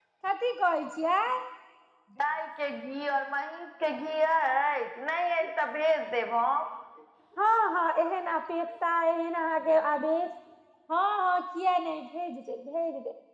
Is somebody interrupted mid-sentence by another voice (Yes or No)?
No